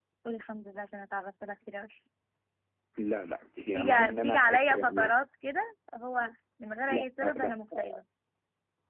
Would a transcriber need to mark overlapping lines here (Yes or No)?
Yes